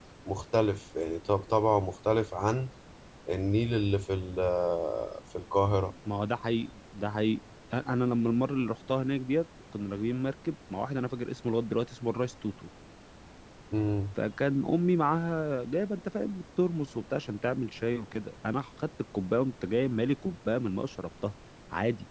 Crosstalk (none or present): none